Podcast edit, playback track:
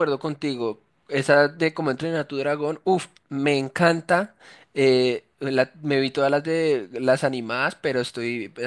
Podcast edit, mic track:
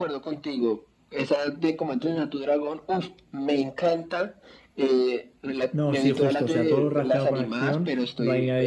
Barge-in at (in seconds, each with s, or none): 5.7 s